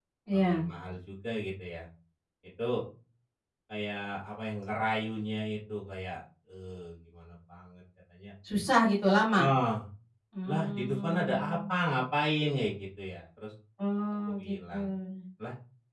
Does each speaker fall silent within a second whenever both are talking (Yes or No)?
No